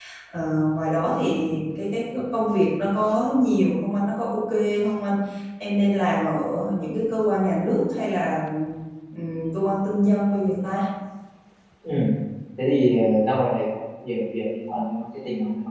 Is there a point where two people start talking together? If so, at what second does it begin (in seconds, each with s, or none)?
none